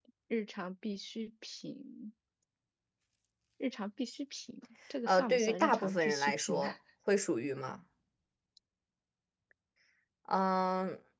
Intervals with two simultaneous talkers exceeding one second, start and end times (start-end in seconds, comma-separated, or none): 5.1-6.7